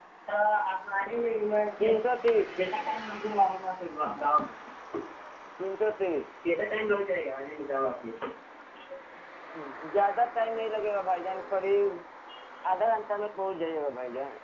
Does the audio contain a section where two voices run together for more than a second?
No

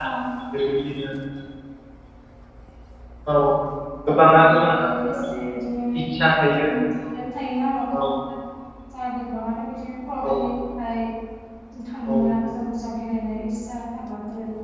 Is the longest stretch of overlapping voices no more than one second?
Yes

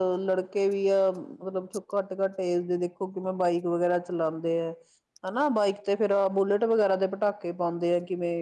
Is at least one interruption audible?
No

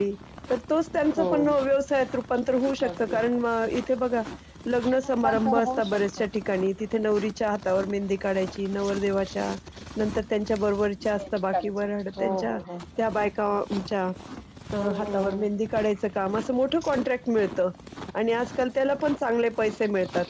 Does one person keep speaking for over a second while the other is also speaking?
Yes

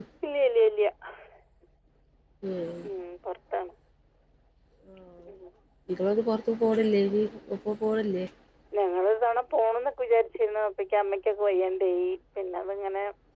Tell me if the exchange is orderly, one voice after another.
Yes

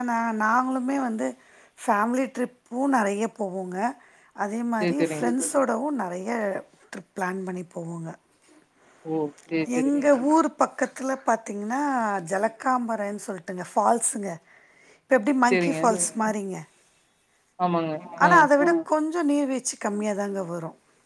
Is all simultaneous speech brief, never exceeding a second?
Yes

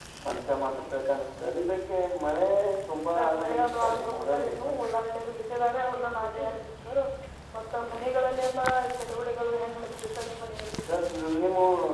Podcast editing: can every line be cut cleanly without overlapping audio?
No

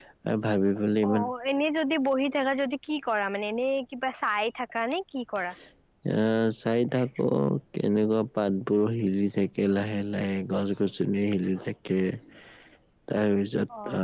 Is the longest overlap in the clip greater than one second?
No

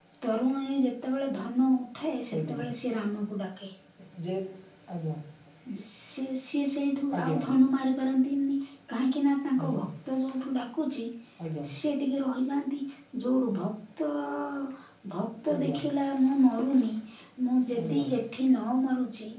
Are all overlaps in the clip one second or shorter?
Yes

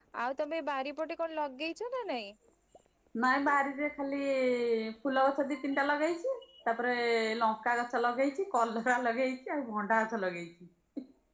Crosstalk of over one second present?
No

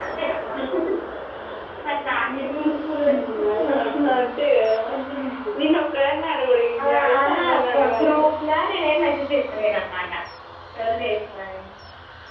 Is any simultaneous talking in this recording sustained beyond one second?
Yes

